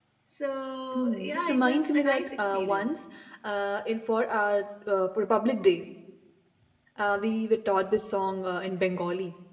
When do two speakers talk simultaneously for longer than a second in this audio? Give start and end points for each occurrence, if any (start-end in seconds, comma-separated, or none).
0.9-3.0